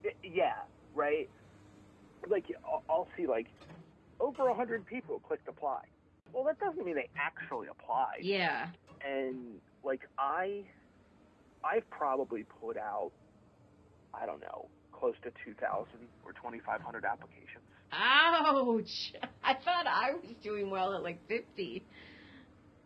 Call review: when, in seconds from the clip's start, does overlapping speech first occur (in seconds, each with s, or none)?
none